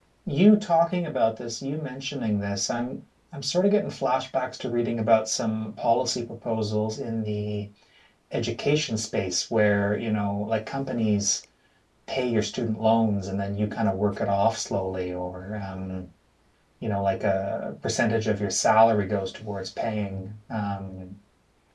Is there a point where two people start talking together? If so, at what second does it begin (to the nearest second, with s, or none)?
none